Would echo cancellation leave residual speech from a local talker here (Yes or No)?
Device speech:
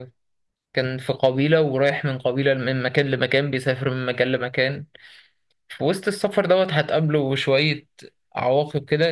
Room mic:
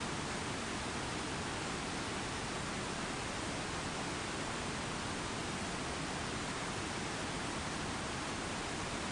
No